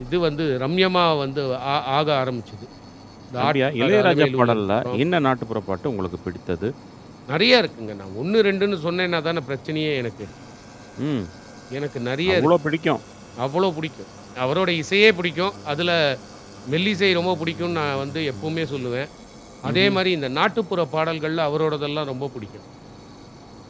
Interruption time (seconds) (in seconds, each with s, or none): 3.4 s